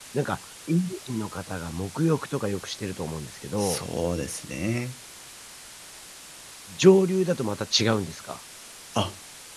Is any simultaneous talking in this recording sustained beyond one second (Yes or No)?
No